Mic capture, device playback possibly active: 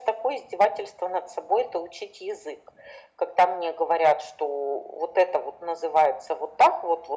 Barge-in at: none

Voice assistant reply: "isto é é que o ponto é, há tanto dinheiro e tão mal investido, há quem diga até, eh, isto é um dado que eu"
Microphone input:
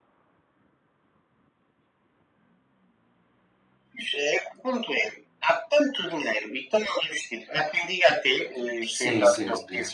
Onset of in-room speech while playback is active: 9 s

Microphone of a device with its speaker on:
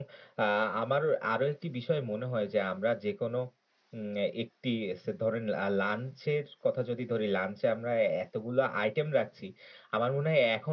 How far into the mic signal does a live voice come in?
none

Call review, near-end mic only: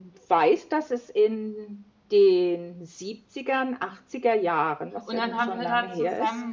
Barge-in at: 5 s

